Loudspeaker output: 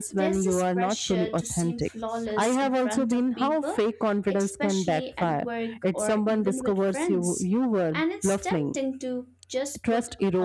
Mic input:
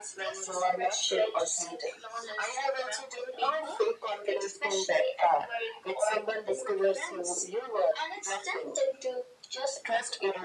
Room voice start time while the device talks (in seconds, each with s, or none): none